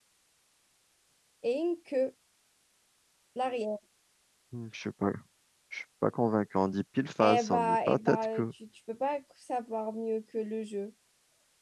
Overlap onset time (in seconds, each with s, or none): 7.2 s